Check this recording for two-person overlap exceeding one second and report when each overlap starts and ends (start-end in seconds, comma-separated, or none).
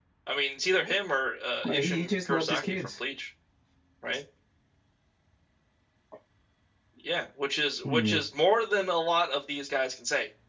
1.7-3.0